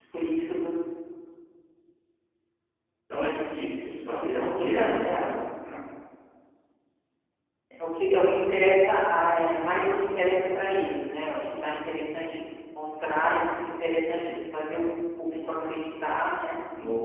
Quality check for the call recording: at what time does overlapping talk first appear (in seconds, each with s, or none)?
4.0 s